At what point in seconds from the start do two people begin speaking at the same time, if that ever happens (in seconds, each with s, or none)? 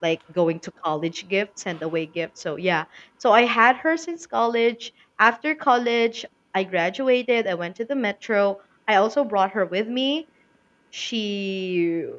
none